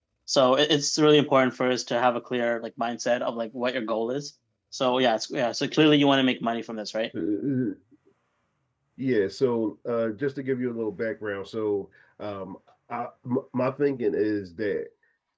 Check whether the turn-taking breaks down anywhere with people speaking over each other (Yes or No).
No